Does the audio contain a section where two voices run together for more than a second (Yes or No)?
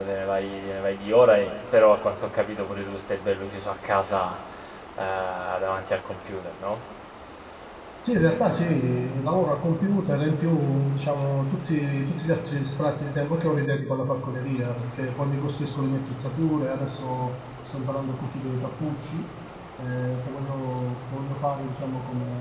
No